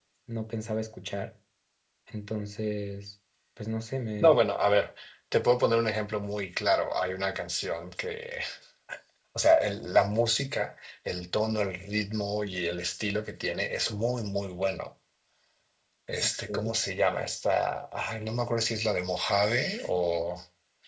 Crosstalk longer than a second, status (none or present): none